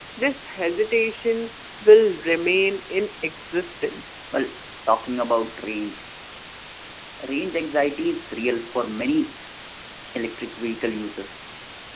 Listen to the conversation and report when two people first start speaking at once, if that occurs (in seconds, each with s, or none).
none